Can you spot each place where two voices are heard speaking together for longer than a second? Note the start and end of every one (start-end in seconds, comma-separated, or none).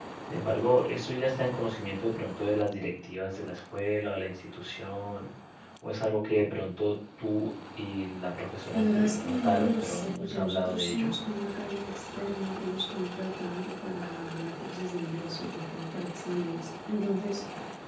8.7-11.1